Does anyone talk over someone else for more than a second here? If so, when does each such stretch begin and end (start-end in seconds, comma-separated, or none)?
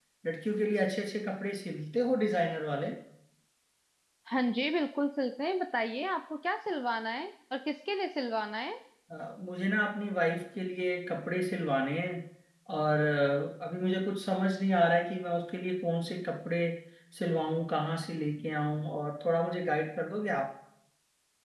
none